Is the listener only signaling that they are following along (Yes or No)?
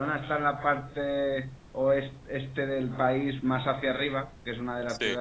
Yes